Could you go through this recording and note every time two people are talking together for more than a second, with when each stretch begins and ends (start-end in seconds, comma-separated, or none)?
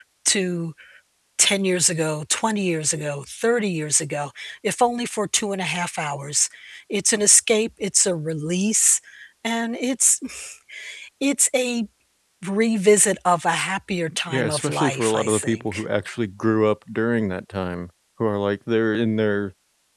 14.3-15.8